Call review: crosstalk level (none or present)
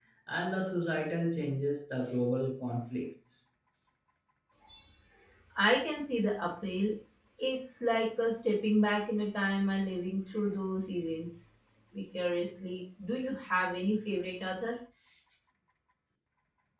none